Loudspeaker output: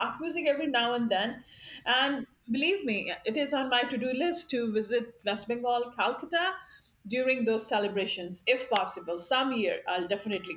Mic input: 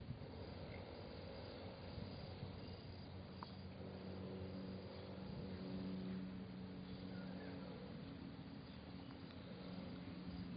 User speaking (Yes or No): No